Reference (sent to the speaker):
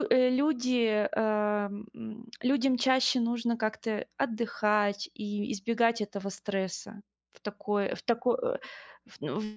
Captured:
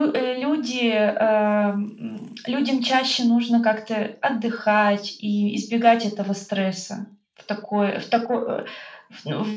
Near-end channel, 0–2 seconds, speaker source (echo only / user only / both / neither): echo only